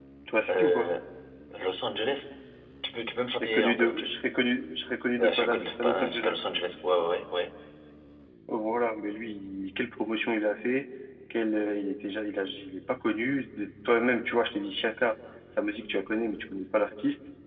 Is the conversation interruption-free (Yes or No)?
No